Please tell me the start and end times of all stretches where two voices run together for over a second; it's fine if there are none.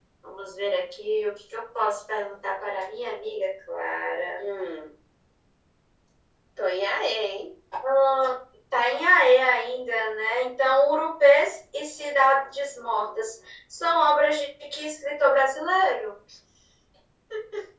none

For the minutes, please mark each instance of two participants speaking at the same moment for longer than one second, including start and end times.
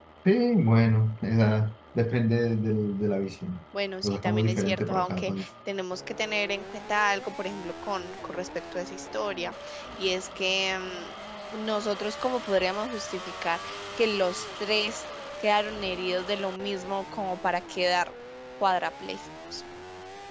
4.0-5.5

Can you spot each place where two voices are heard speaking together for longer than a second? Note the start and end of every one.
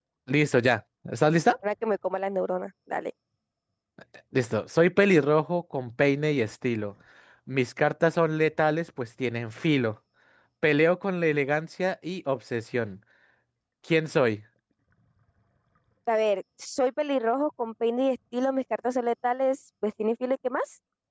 none

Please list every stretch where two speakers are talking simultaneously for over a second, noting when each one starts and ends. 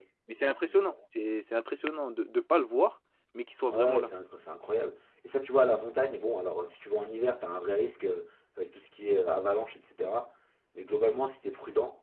none

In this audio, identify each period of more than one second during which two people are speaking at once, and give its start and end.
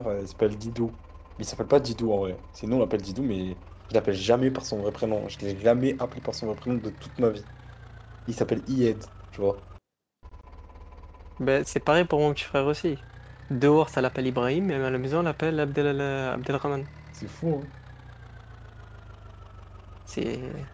none

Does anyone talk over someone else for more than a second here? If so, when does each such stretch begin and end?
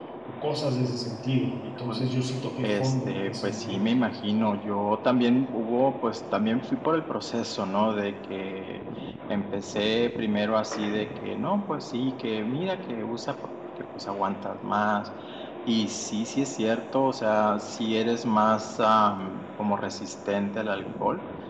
2.6-3.9

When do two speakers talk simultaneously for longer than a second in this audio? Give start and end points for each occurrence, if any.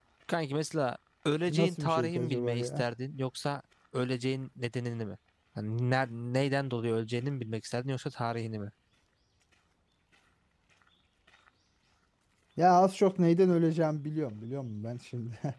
1.5-2.9

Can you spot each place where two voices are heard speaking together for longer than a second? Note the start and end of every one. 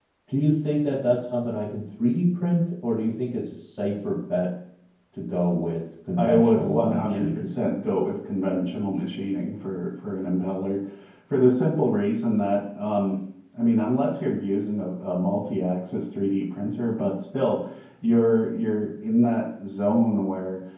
6.2-7.5

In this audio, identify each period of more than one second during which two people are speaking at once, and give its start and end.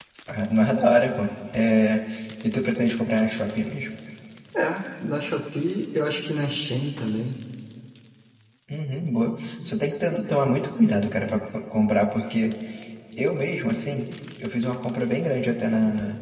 none

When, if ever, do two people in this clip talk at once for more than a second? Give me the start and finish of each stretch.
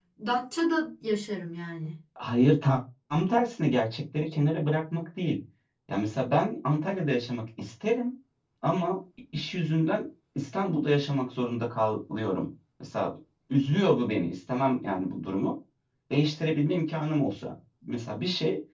none

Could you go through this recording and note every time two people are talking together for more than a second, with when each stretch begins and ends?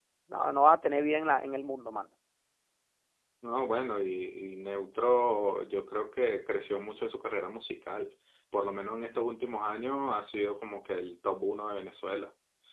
none

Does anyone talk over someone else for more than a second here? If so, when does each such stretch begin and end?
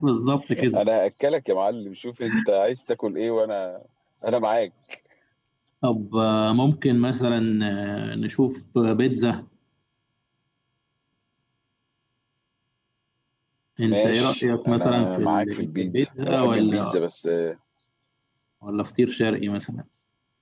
13.8-17.0

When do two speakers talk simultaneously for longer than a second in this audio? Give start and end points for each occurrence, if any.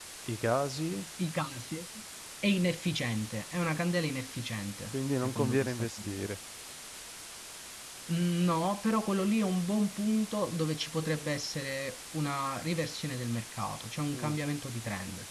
4.9-6.3

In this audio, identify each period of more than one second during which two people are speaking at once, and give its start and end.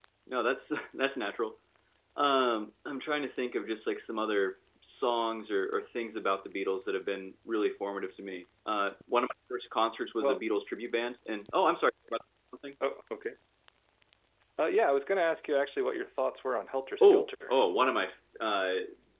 none

